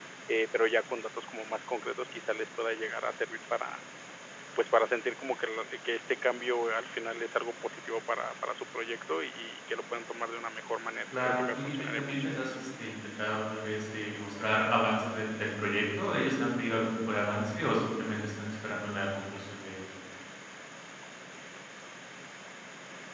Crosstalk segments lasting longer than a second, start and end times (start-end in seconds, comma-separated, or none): 11.1-12.6